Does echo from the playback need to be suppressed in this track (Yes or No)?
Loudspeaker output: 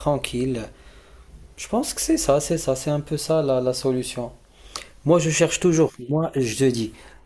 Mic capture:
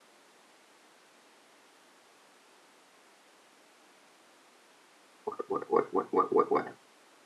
No